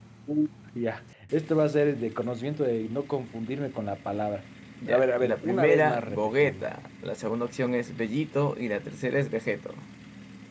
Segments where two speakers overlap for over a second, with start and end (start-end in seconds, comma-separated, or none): 4.9-6.7